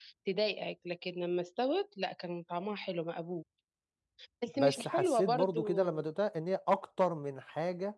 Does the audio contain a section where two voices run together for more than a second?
Yes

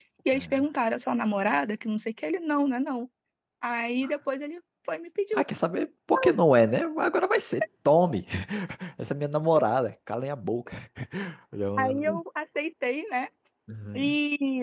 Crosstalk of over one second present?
No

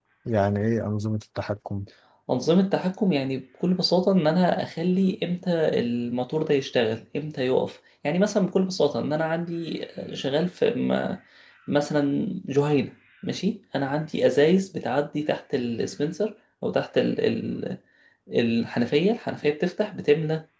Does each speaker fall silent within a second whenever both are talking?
Yes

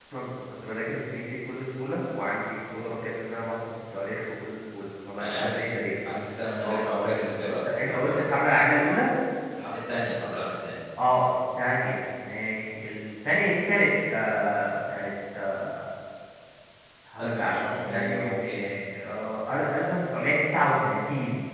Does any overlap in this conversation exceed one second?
Yes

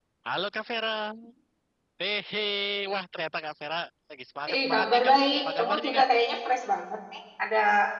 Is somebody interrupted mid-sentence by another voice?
Yes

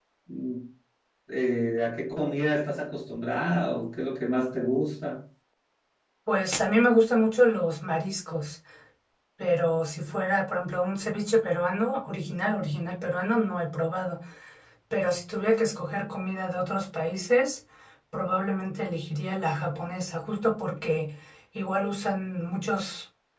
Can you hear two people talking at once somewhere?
No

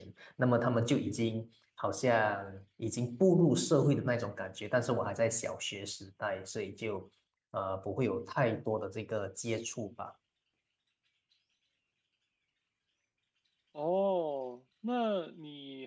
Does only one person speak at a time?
Yes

